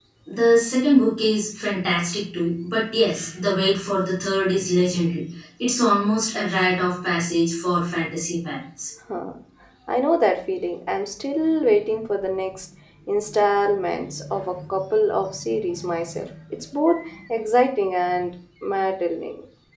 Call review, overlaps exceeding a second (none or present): none